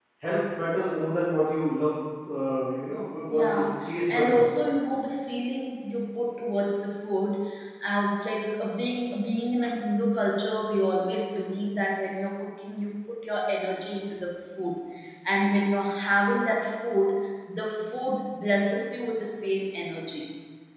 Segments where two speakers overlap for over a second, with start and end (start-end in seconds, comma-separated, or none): 3.4-4.6